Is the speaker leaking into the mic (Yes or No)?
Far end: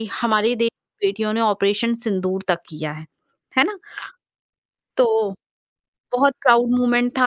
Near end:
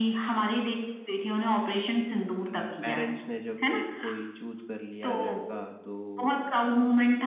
Yes